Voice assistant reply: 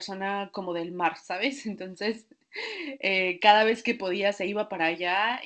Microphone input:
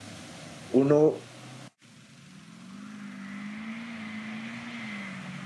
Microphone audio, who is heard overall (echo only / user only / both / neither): user only